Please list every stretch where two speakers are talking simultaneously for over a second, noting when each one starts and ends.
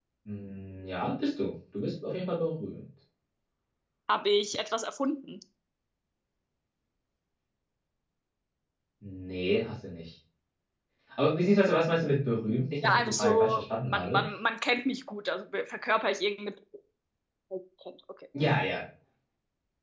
12.8-14.2

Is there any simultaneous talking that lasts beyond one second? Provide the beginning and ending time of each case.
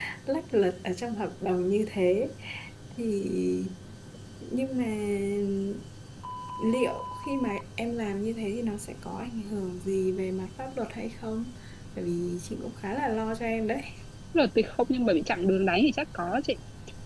none

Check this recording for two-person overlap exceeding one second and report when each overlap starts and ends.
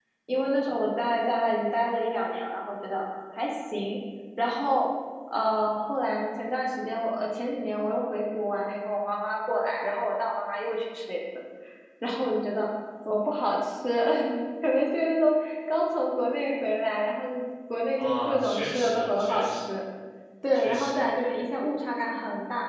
18.0-19.7

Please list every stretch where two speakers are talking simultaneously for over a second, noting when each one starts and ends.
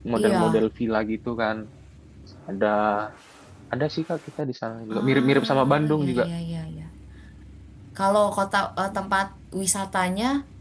4.9-6.2

